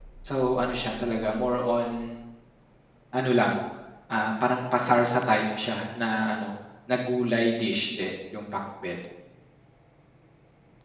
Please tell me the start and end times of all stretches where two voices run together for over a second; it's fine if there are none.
none

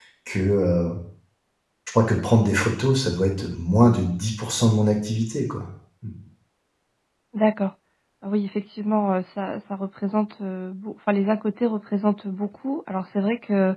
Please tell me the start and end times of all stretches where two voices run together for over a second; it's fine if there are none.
none

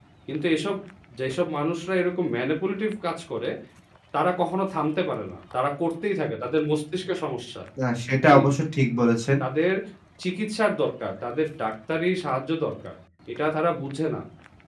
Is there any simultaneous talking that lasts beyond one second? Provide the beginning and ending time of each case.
none

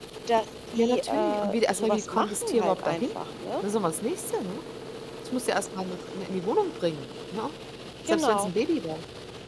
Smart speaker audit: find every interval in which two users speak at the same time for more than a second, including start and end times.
0.8-3.1

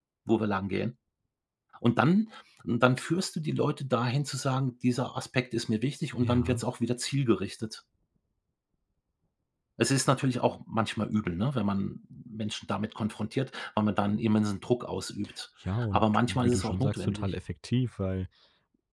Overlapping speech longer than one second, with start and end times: 15.9-17.3

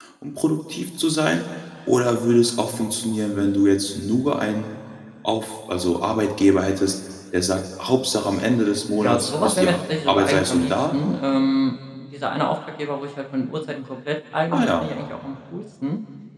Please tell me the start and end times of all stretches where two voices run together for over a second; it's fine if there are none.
9.0-11.0

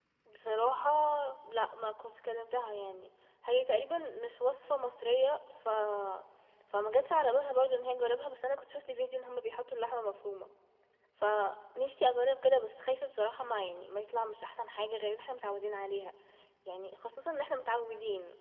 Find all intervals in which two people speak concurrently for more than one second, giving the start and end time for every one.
none

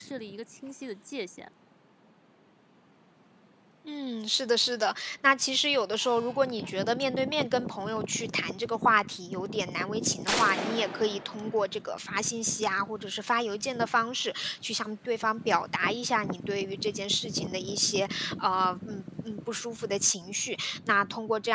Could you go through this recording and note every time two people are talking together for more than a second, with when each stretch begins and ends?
none

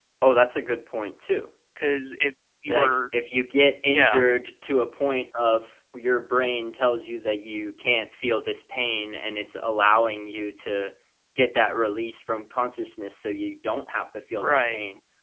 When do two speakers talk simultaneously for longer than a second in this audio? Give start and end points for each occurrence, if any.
none

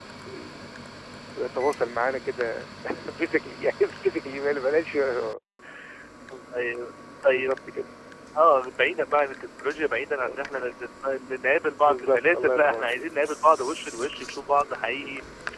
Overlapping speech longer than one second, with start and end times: 11.8-13.4

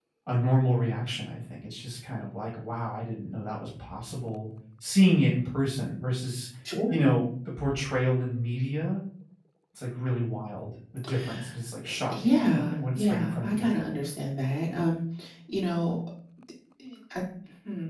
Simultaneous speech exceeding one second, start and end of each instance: 12.1-13.7

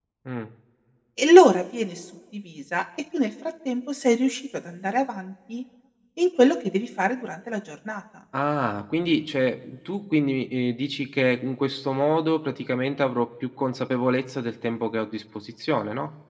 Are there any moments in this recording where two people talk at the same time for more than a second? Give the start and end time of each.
none

